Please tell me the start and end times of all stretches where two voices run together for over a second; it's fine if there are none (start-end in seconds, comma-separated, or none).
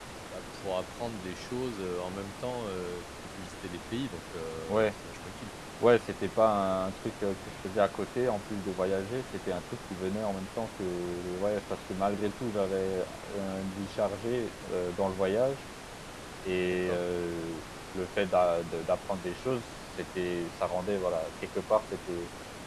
none